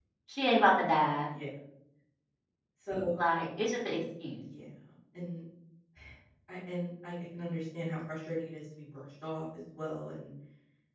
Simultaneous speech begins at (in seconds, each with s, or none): none